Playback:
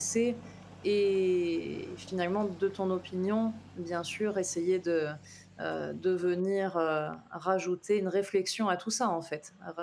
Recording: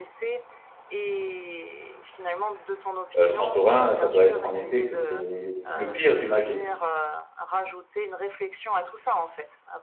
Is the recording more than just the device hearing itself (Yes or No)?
Yes